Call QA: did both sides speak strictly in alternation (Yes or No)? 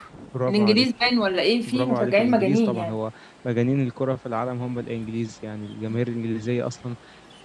No